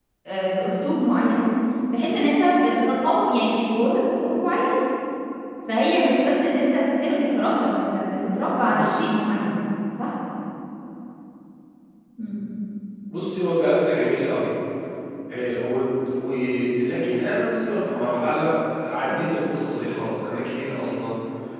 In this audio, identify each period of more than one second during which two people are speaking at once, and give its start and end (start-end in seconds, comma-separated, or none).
none